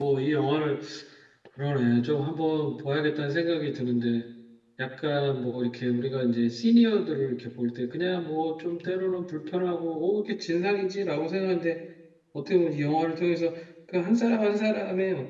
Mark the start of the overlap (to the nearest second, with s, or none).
none